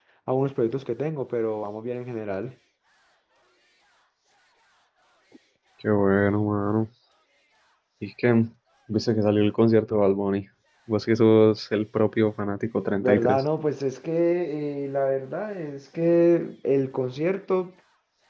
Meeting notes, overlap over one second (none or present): none